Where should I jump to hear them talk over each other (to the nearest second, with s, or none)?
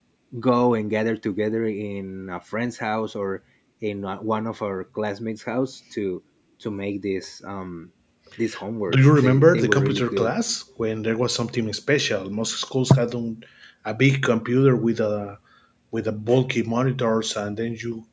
9 s